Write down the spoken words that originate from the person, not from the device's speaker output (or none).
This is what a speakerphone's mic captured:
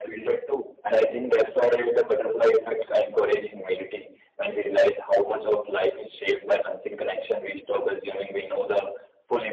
none